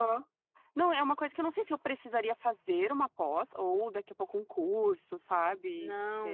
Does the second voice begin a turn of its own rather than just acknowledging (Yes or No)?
Yes